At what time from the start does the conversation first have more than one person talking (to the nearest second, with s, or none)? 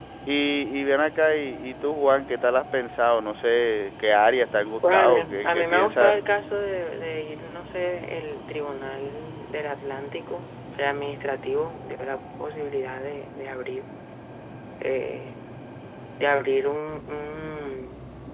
5 s